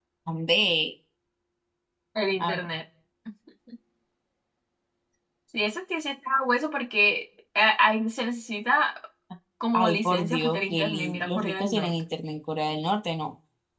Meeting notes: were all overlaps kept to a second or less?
No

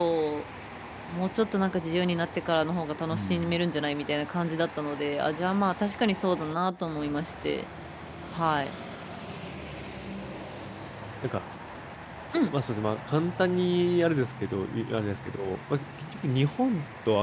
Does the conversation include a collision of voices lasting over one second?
No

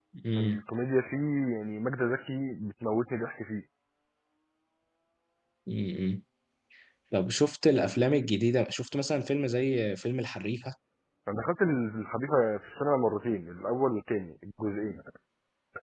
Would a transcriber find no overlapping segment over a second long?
Yes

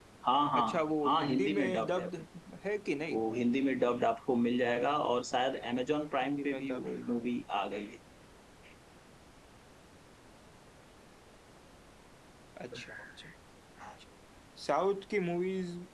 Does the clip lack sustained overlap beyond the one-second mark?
No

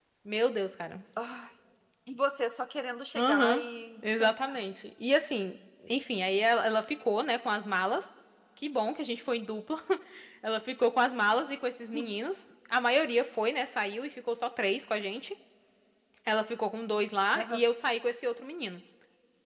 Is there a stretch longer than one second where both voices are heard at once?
No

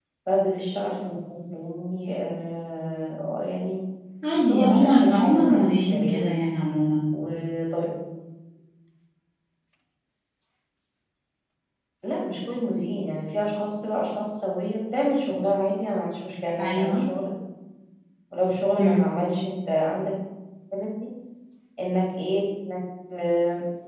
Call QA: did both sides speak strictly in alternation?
No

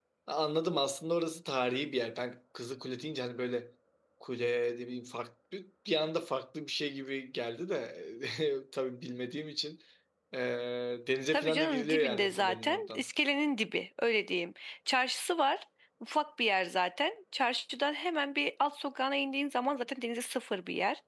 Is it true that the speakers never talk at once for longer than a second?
No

